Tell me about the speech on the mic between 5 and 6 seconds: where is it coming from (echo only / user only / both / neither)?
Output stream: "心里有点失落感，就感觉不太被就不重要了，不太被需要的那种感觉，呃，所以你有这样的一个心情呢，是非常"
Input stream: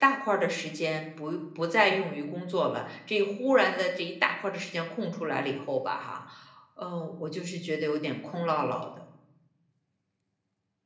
user only